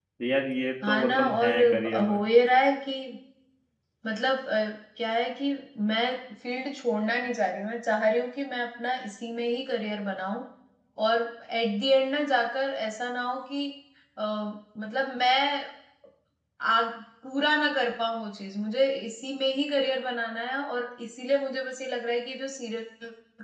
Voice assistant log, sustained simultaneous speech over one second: present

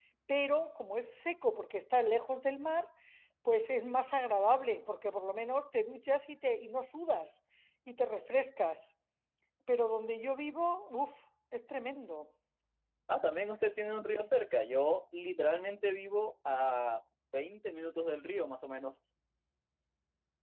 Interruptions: none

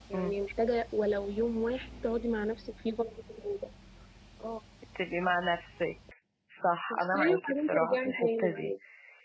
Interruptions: present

